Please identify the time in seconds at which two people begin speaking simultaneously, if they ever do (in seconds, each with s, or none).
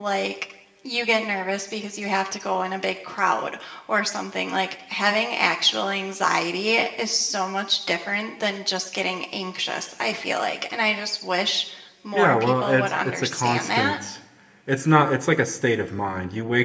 12.1 s